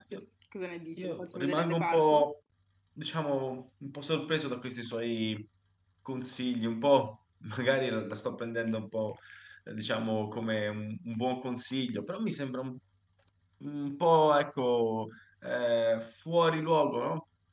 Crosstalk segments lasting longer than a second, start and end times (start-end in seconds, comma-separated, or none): 1.0-2.3